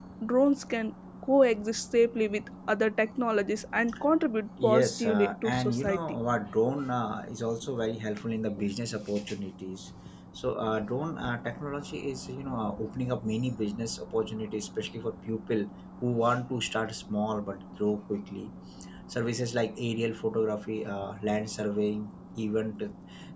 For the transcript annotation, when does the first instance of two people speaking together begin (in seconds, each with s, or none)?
4.6 s